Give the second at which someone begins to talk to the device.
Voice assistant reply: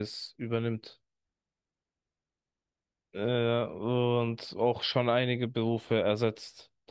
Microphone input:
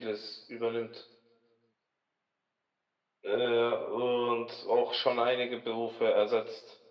none

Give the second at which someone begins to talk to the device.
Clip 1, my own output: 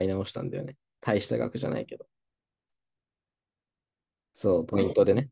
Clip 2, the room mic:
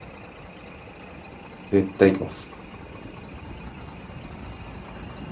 1.7 s

